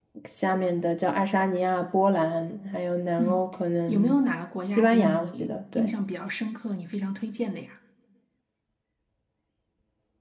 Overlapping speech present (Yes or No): Yes